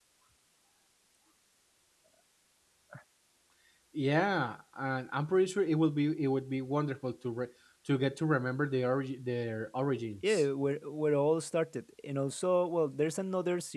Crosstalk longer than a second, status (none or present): none